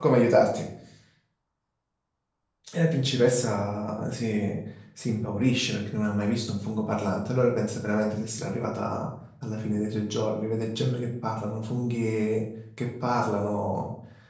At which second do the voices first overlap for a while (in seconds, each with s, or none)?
none